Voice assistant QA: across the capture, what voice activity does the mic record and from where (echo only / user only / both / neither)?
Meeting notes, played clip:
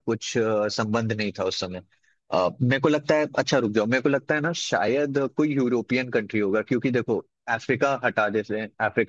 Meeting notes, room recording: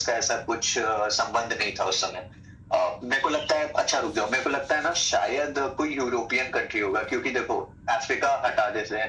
echo only